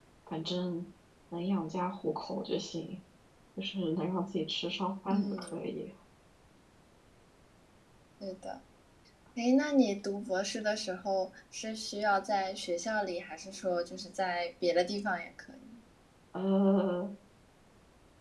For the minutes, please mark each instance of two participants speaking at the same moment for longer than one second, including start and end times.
none

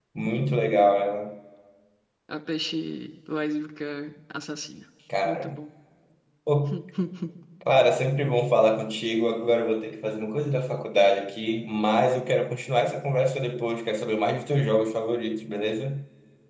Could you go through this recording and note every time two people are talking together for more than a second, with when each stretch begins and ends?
none

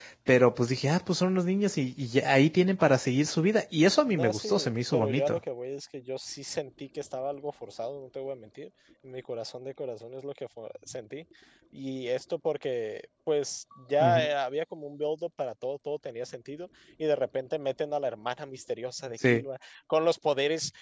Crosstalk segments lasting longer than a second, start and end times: 4.1-5.4

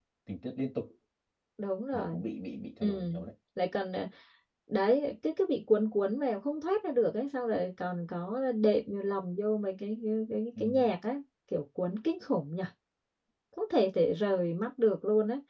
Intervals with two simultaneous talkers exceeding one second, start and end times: none

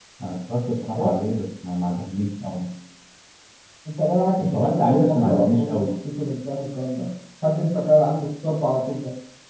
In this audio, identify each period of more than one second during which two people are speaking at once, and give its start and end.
4.4-5.9

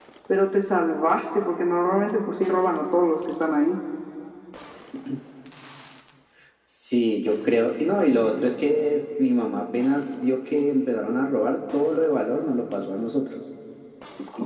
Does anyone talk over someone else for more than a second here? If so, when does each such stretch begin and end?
none

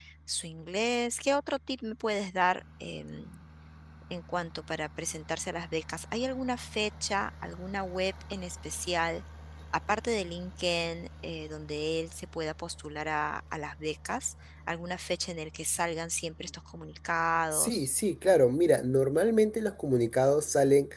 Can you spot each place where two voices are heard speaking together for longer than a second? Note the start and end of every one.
none

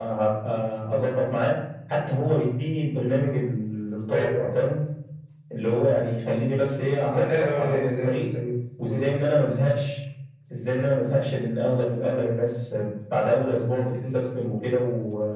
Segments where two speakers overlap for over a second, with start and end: 6.9-8.2

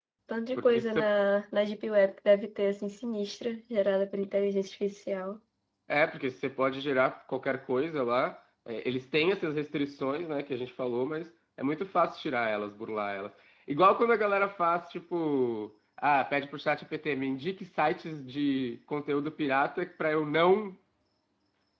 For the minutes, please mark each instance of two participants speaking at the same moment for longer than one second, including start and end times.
none

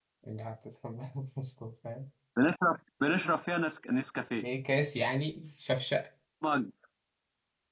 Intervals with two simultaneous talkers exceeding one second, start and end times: none

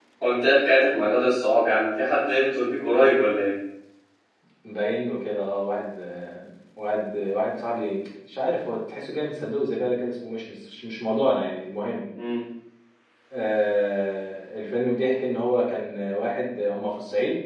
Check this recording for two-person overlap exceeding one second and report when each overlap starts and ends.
none

